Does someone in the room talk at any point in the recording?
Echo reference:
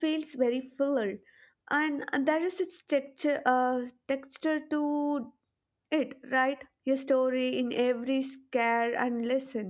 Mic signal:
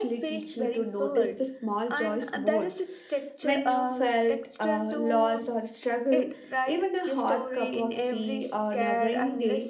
Yes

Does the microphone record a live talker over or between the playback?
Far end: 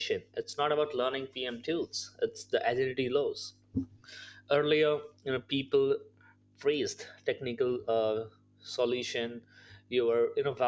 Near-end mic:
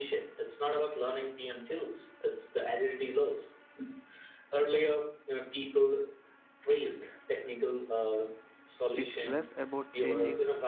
Yes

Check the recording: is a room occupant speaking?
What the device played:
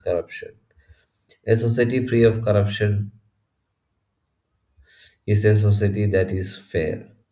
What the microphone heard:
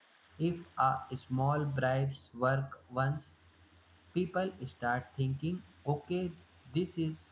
Yes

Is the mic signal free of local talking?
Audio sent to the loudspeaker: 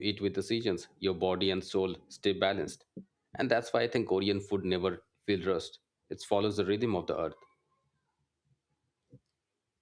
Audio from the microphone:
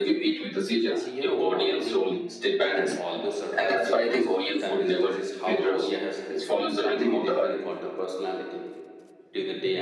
No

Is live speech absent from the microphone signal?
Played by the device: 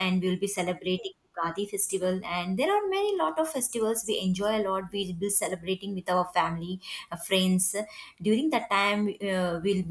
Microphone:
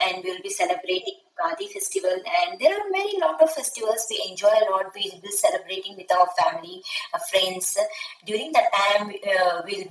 Yes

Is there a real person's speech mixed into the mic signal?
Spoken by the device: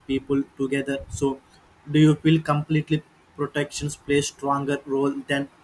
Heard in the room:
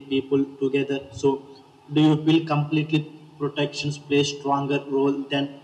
No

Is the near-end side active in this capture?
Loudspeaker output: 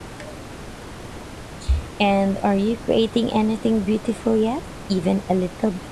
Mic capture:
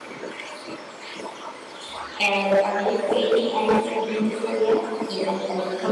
No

